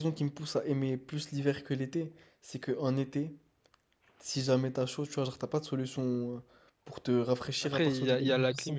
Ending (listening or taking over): taking over